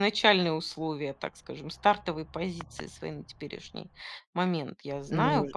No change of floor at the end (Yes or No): Yes